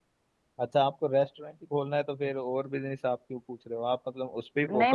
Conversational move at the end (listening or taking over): taking over